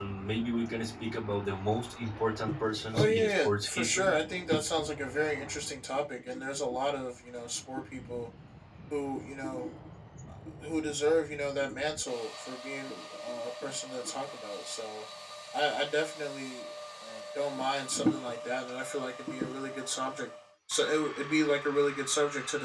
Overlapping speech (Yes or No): Yes